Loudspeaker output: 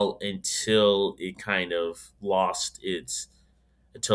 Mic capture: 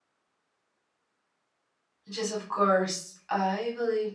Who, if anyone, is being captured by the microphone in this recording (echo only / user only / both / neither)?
user only